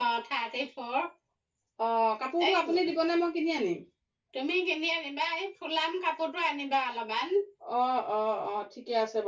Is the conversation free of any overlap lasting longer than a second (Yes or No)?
Yes